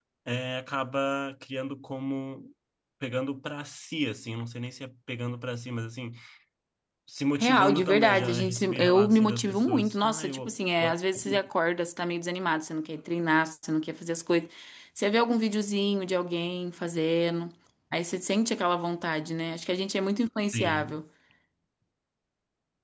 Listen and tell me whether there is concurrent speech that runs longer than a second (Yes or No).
Yes